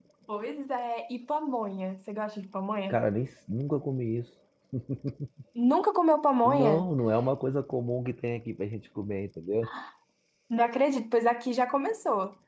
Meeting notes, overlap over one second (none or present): none